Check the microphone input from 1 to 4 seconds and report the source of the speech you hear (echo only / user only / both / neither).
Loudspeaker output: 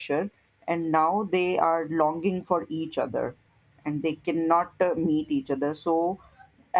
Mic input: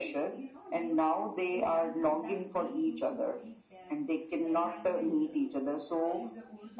both